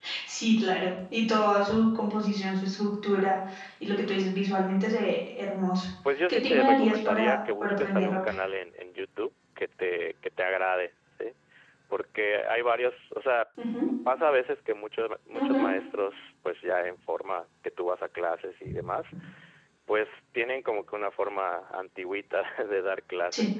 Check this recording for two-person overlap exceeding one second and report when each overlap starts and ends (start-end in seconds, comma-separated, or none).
6.3-8.2